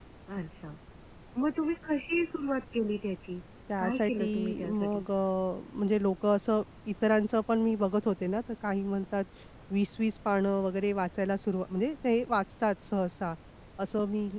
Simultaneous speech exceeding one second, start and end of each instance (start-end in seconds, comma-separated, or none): 3.8-5.0